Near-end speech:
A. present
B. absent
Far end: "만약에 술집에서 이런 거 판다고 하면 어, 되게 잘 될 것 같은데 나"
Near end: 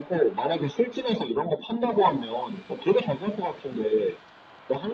B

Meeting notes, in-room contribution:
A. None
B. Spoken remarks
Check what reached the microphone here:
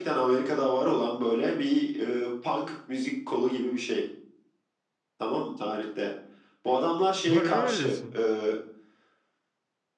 B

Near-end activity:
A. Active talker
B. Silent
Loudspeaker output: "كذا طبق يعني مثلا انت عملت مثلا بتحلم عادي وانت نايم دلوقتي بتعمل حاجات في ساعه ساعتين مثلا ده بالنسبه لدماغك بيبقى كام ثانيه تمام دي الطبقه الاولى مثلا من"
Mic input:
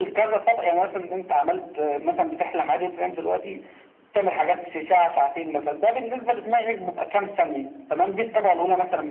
B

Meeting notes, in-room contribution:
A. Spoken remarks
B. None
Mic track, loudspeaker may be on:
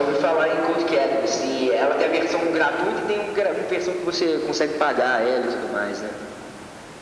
B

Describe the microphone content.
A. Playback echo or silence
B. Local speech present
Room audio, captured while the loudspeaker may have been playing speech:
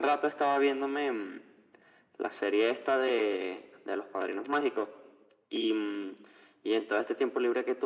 A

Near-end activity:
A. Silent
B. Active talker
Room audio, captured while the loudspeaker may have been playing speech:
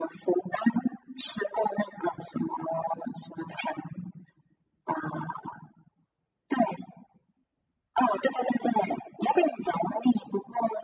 A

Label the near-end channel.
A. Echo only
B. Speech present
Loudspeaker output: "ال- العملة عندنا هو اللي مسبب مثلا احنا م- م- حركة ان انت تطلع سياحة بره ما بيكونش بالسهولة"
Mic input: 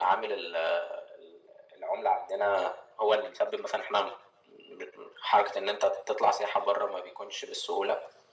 A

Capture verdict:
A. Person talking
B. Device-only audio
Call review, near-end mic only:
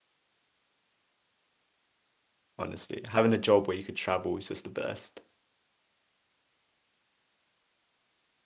A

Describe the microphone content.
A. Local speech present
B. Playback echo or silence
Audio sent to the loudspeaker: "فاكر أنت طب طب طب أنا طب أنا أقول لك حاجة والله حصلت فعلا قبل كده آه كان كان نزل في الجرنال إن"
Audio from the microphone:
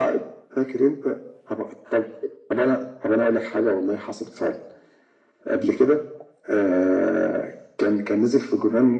B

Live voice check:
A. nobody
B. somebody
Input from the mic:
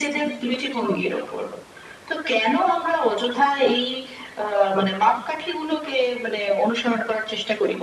A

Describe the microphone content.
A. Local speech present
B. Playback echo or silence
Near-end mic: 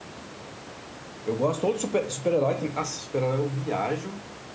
A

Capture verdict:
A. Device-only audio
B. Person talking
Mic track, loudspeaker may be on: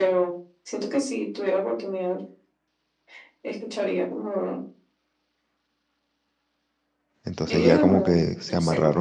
B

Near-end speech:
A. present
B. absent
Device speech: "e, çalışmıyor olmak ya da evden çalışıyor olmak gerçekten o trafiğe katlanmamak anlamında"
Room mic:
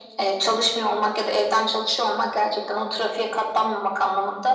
B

